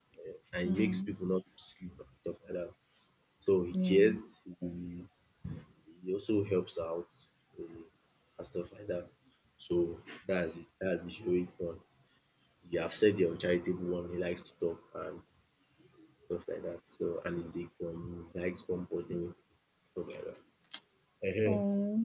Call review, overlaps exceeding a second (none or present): none